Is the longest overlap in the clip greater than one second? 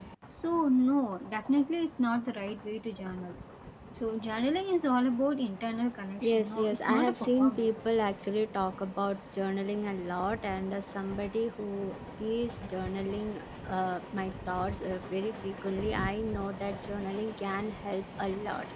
Yes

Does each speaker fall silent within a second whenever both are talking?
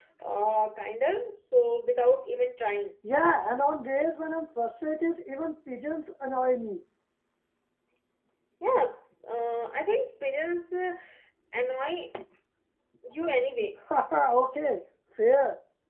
Yes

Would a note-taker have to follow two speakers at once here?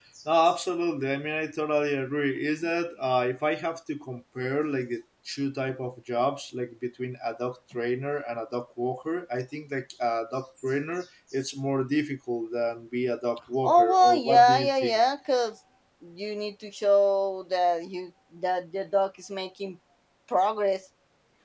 Yes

